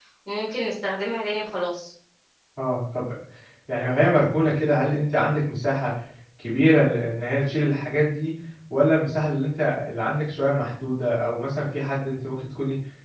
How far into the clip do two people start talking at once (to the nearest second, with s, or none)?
none